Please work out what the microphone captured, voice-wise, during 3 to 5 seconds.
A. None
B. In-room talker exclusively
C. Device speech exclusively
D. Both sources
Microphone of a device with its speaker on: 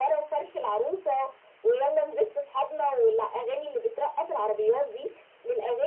C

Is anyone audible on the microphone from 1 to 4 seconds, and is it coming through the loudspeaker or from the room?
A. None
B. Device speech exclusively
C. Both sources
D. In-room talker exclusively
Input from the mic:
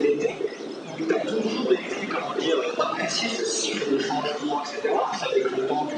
B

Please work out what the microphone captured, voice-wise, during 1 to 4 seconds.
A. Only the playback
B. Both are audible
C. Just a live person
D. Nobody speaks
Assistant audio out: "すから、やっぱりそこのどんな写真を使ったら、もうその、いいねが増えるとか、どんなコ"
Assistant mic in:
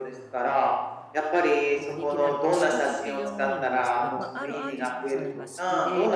B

